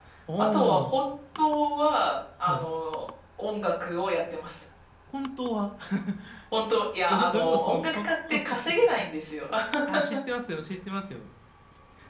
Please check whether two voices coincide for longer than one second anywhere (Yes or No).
Yes